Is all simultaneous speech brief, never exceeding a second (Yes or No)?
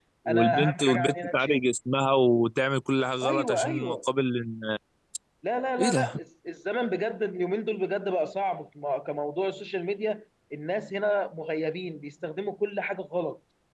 No